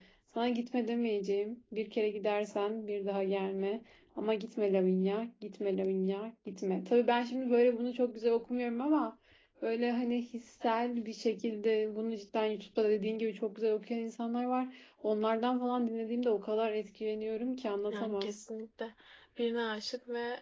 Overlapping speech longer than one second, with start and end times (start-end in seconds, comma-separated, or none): none